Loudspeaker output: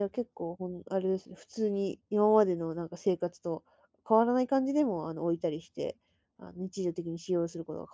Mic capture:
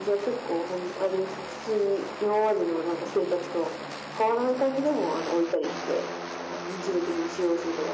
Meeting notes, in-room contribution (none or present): none